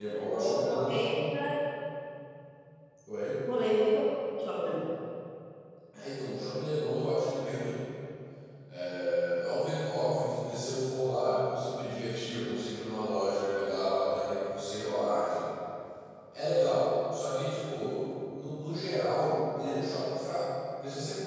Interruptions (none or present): present